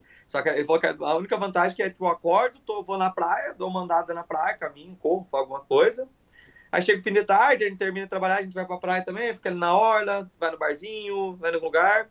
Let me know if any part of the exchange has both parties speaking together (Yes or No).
No